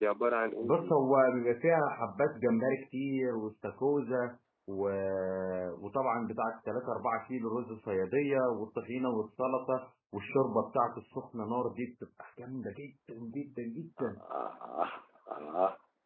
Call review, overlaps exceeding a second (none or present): none